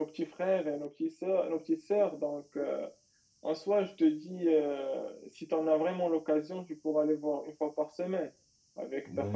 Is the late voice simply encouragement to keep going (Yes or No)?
No